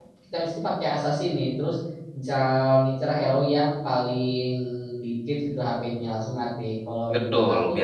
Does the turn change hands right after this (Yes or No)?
Yes